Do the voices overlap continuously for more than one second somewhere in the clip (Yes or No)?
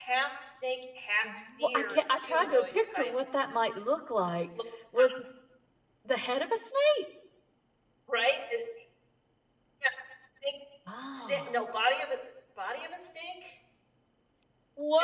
Yes